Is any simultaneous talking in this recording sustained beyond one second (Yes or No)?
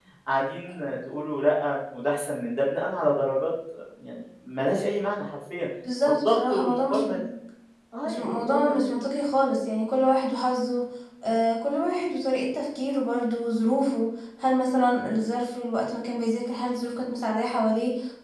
Yes